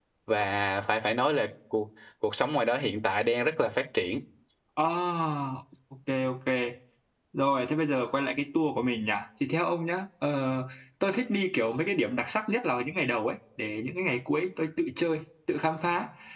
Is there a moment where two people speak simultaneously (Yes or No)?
No